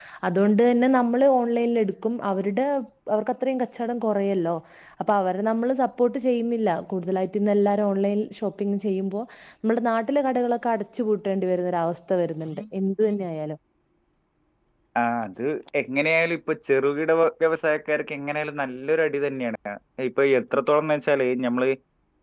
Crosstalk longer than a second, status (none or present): none